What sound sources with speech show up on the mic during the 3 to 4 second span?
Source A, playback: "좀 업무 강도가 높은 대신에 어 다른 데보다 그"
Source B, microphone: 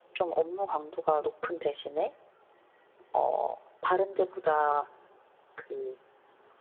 echo only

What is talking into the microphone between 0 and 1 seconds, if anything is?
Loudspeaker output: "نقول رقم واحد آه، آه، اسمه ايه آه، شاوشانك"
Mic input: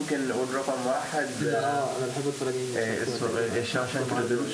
echo only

